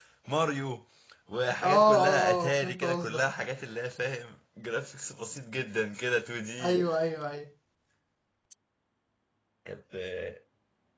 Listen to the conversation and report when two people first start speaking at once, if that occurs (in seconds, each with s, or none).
1.6 s